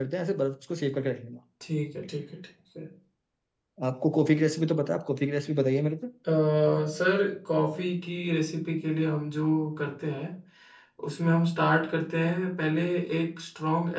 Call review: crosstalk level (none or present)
none